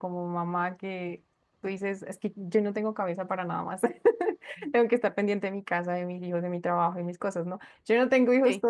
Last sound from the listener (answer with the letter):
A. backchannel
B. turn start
A